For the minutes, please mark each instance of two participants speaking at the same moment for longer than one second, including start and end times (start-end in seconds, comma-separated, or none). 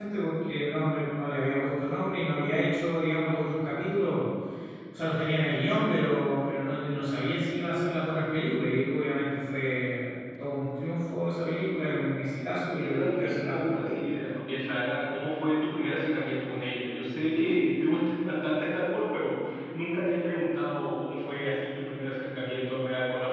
12.6-14.1